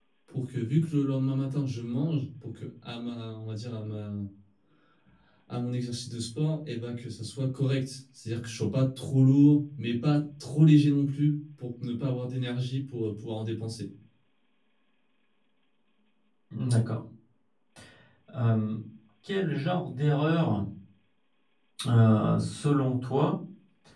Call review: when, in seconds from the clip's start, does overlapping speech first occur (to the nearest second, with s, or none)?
none